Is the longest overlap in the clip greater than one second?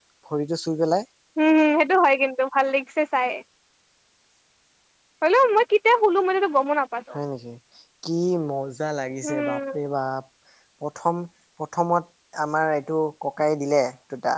No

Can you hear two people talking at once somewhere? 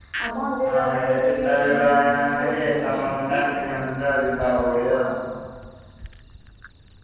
Yes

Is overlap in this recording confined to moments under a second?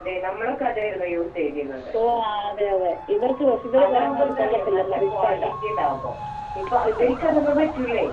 No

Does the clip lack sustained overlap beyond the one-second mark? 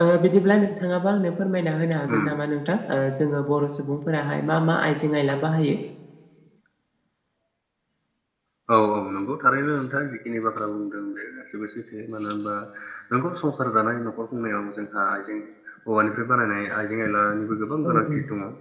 Yes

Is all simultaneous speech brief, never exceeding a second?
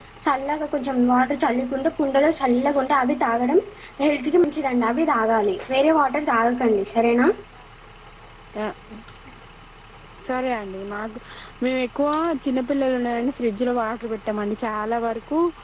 Yes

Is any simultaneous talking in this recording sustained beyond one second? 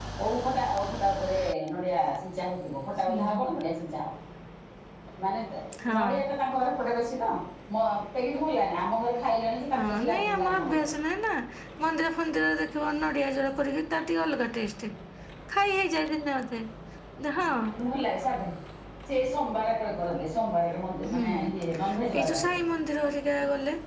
Yes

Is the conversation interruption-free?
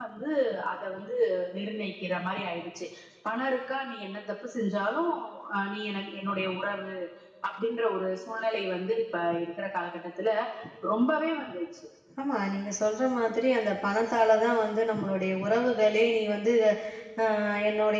Yes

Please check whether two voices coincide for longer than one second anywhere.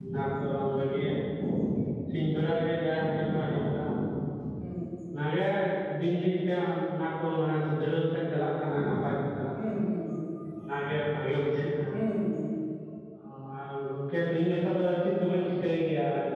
No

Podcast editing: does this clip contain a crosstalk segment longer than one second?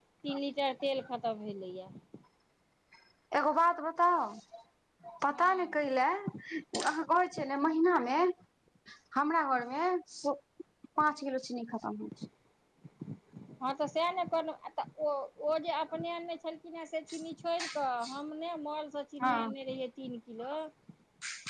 No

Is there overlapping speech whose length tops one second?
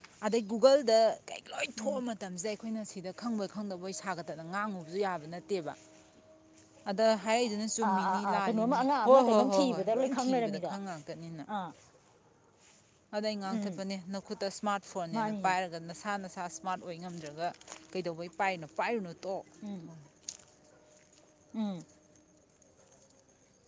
Yes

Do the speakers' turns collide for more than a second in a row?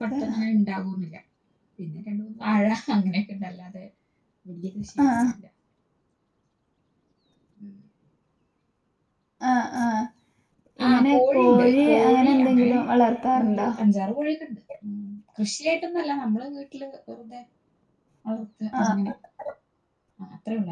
Yes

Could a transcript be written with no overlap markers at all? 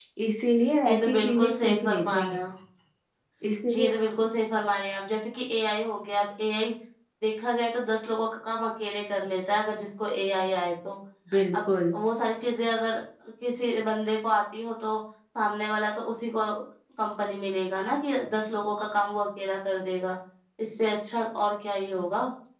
No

